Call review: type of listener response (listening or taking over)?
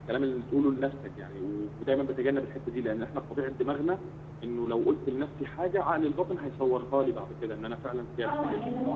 taking over